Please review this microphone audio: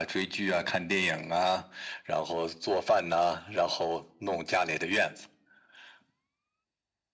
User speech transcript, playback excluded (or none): none